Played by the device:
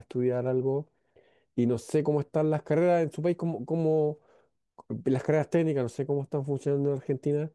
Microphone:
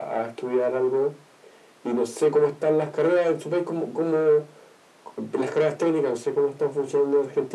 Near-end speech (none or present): none